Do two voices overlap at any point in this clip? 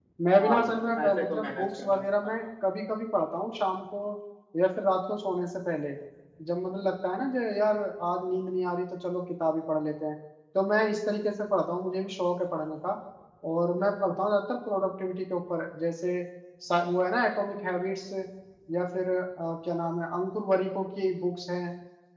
Yes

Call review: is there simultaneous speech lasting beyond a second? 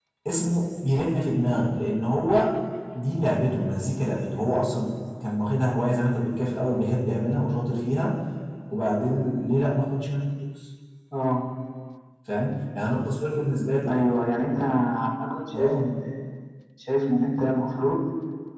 No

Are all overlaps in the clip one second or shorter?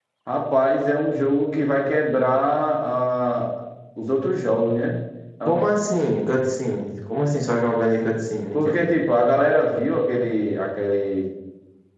Yes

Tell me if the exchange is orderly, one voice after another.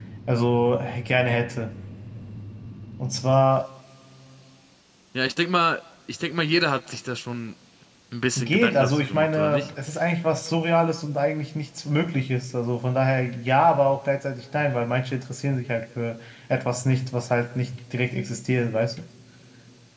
No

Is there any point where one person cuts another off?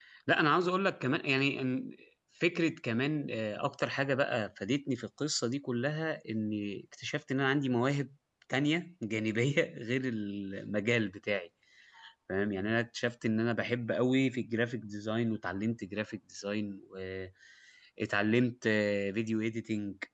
No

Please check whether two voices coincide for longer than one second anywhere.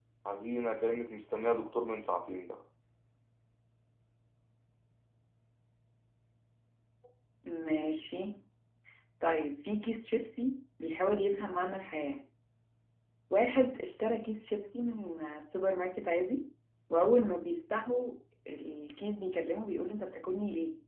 No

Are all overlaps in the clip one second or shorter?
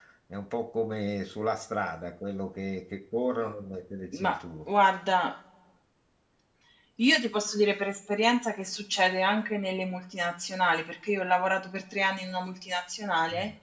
Yes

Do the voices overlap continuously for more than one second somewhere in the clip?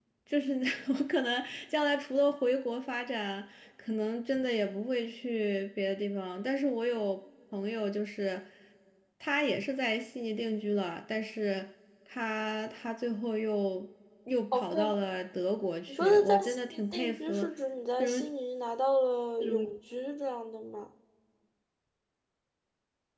Yes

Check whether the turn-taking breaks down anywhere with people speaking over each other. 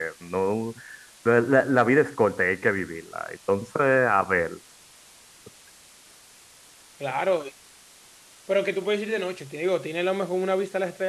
No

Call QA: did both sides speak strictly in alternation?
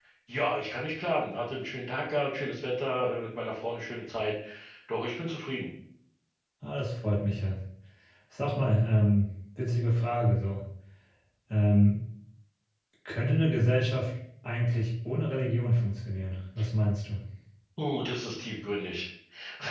Yes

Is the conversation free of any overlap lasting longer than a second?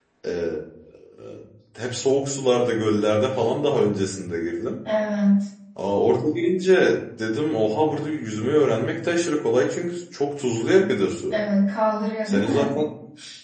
Yes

